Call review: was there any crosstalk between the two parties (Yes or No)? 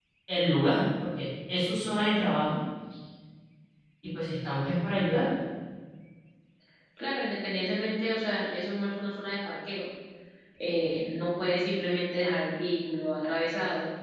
No